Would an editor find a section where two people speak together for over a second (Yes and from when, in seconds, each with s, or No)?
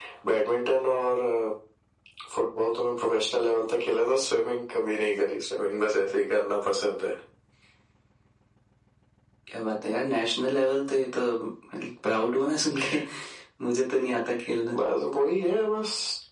No